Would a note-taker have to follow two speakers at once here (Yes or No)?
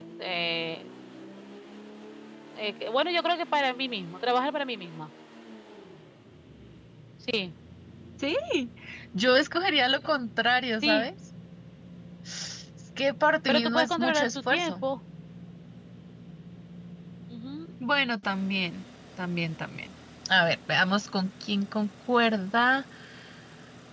Yes